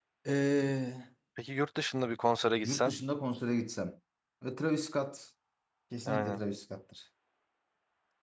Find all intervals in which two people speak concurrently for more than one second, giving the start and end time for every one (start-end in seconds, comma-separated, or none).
none